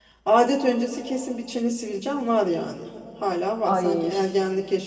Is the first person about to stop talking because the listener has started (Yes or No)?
No